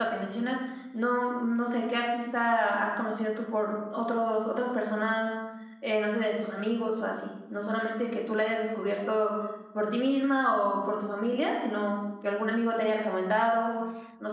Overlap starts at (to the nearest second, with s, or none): none